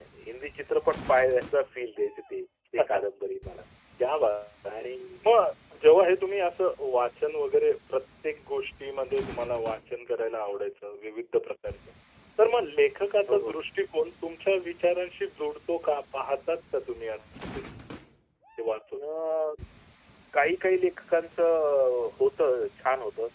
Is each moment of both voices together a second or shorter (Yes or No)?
Yes